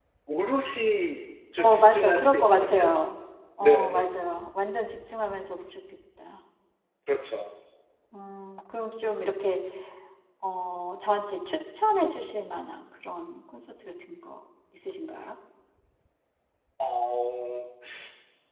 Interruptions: present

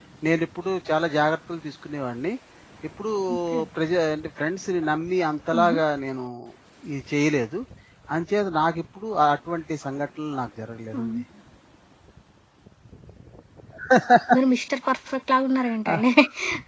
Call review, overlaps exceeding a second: none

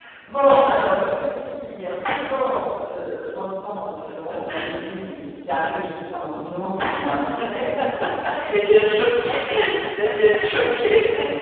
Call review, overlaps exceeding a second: none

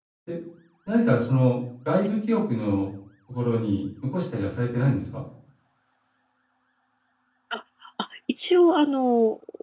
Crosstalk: none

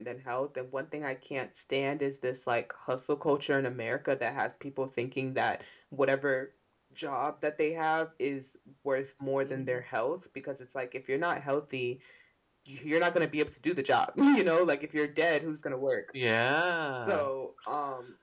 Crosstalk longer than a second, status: none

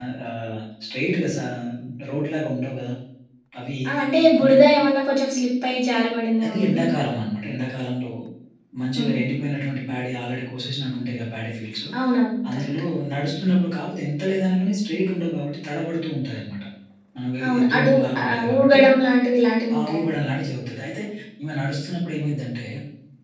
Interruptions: present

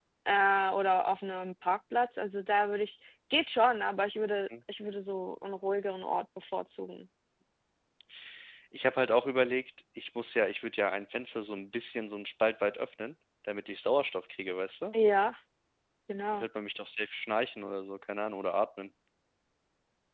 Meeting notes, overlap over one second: none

